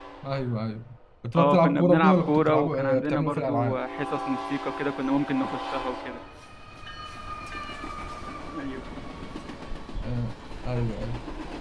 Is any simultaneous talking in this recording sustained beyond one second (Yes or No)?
Yes